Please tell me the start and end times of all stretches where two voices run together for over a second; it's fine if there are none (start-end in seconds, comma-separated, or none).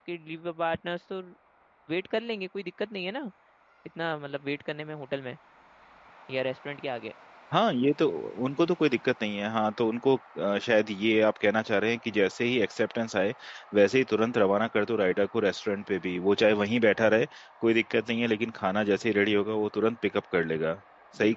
none